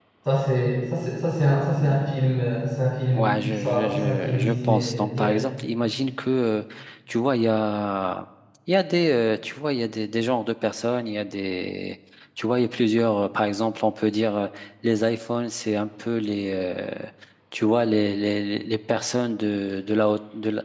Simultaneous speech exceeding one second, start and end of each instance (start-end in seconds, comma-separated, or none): 3.1-5.4